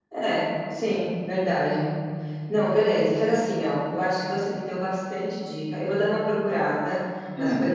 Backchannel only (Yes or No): Yes